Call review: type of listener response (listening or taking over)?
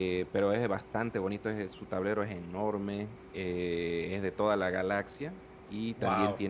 listening